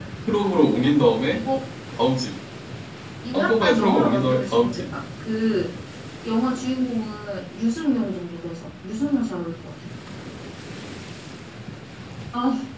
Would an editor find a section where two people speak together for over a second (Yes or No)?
Yes